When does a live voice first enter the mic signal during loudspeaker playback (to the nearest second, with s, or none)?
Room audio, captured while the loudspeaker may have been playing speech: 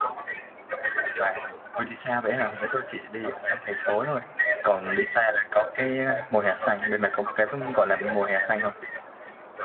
1 s